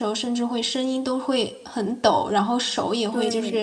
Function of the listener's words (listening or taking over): listening